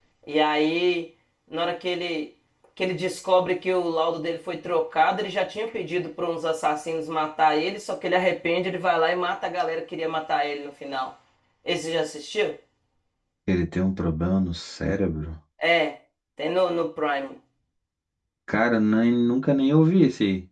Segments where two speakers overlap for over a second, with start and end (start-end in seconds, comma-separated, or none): none